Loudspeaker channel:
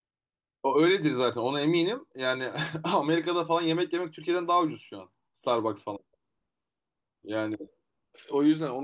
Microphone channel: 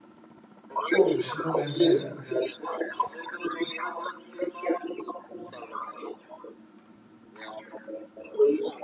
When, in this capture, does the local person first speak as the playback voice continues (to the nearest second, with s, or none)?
1 s